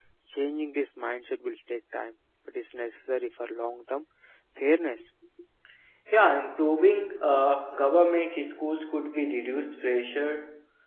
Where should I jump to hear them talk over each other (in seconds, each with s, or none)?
none